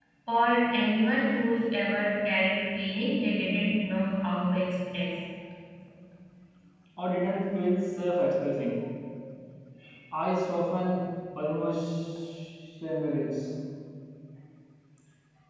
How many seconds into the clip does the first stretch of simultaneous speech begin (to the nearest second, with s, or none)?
none